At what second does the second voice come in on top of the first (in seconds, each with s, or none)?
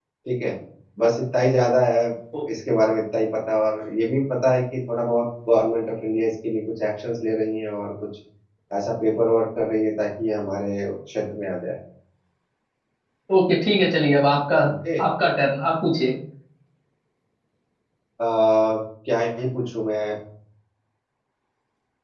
none